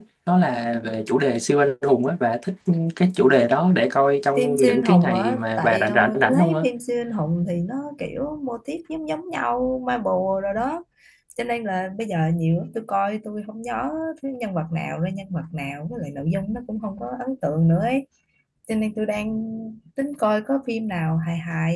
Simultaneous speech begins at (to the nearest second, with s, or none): 4 s